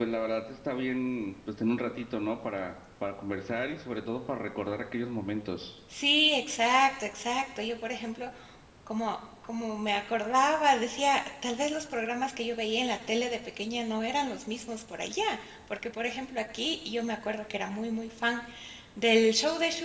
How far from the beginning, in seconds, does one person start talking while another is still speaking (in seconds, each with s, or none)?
none